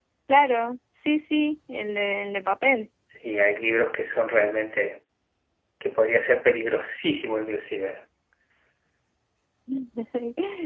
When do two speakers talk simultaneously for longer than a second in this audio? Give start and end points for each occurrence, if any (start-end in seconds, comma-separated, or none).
none